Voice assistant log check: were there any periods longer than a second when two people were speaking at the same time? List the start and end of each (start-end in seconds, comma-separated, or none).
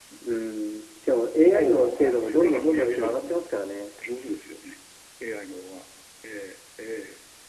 1.4-3.4